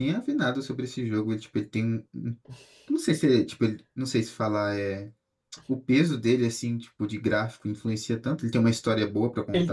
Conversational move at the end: taking over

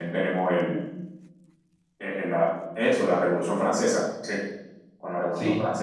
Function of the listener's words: listening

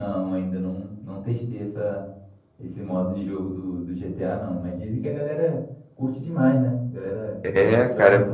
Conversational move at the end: taking over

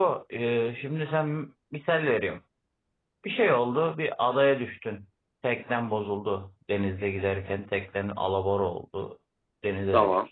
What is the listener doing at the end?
listening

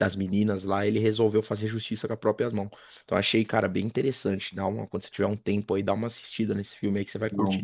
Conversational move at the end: taking over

